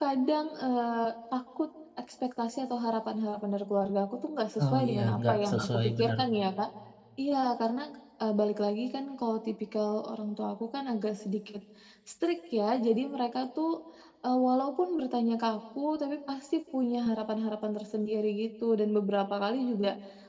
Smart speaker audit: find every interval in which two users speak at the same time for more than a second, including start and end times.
4.6-6.1

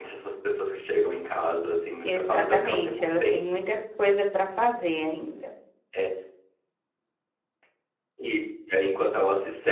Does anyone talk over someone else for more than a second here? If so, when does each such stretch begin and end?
2.0-3.4

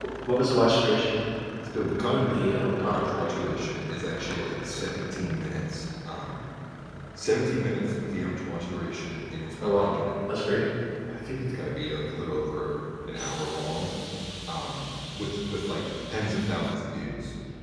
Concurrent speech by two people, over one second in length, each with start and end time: 2.1-3.4

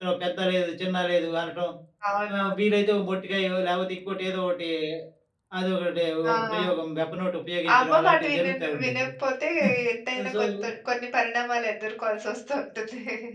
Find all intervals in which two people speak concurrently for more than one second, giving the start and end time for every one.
7.7-9.1

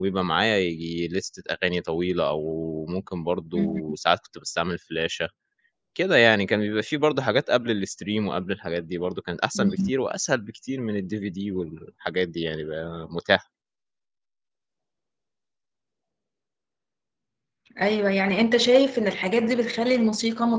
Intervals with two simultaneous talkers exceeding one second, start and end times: none

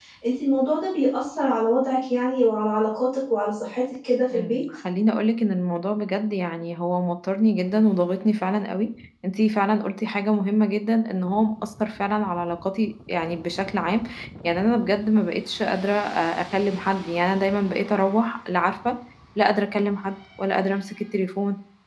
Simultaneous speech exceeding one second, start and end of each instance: none

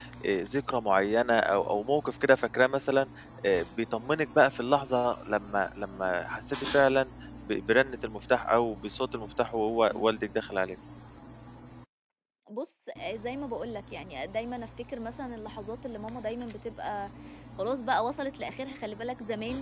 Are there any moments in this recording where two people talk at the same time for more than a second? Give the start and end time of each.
none

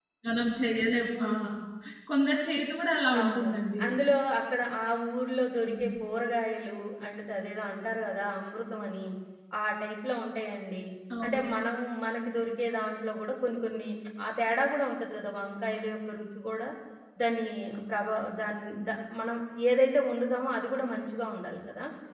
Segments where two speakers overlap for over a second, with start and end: none

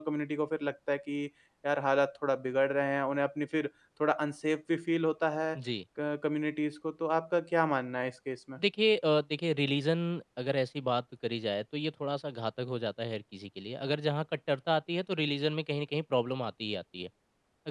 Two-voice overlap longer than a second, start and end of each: none

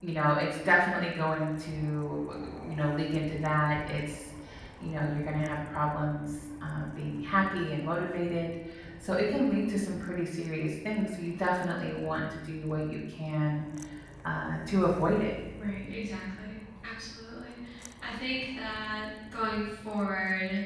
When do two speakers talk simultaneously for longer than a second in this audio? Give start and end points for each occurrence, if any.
none

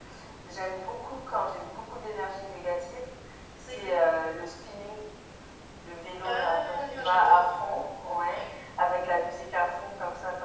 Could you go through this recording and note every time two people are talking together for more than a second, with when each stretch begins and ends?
6.2-7.5

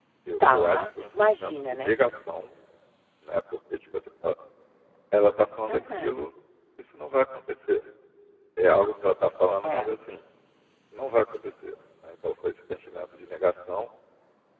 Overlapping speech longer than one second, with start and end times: 0.5-2.0

